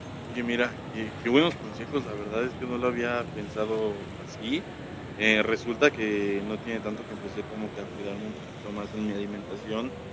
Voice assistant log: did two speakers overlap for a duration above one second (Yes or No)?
No